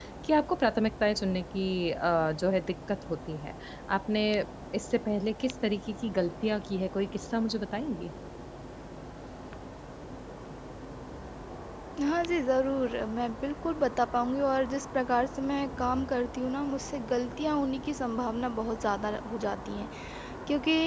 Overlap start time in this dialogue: none

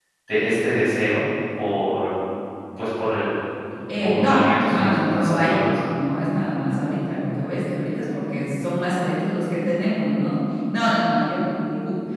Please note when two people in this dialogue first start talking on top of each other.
4.0 s

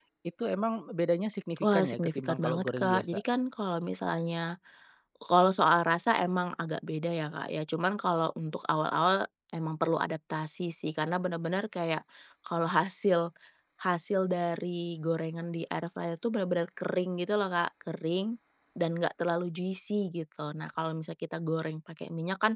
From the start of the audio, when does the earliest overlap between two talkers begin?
1.6 s

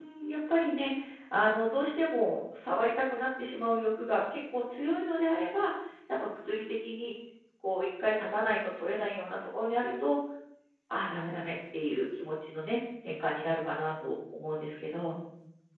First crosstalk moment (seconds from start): none

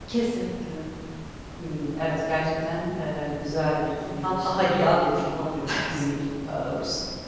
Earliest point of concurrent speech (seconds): 4.0 s

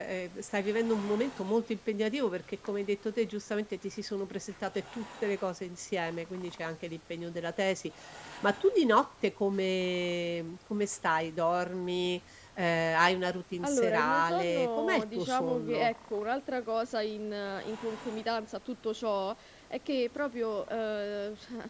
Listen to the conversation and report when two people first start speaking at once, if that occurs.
13.6 s

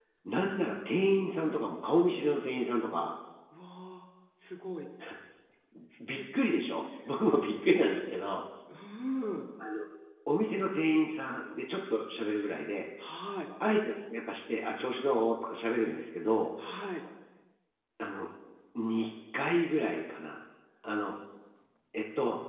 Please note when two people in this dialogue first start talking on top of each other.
none

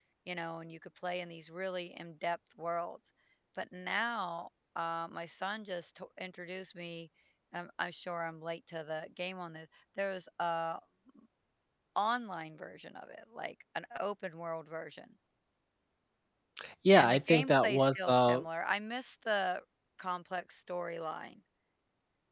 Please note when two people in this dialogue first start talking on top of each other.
16.9 s

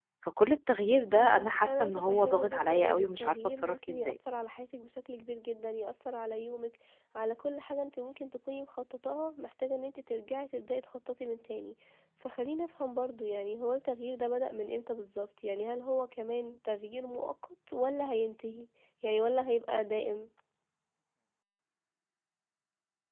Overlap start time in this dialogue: 1.1 s

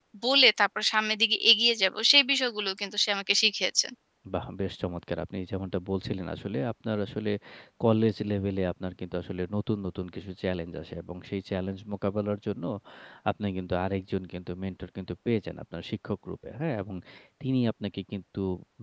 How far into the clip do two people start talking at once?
none

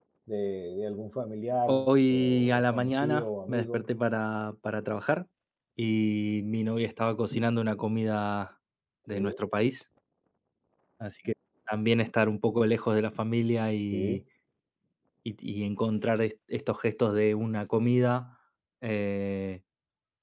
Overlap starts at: 1.7 s

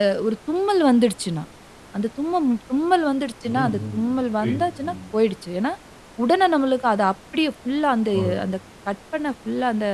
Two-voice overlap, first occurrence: 3.5 s

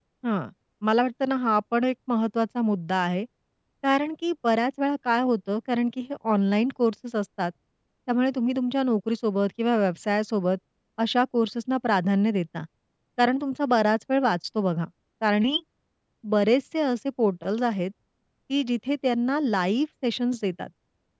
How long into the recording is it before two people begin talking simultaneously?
none

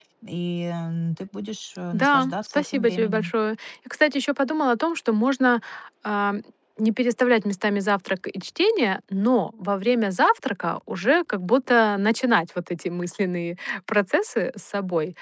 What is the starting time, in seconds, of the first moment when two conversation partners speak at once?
1.9 s

